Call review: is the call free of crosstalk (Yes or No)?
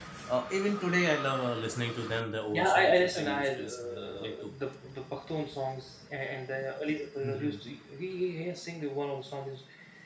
No